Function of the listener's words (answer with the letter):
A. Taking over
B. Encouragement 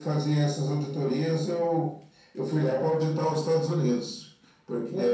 B